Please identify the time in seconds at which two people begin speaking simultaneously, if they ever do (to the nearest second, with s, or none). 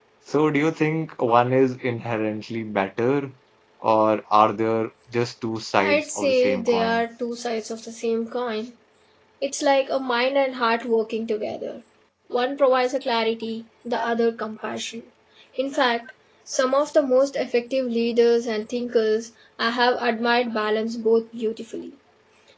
6 s